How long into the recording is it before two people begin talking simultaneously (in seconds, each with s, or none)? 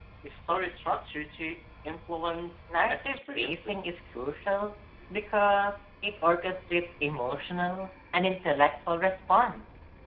2.7 s